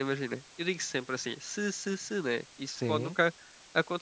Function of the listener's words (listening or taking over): listening